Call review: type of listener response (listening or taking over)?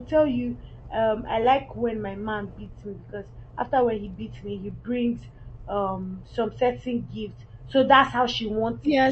taking over